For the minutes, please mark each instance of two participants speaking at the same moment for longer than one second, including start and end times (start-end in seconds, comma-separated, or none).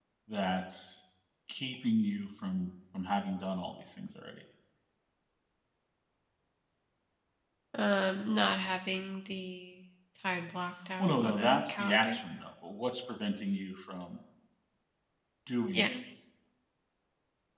11.0-12.2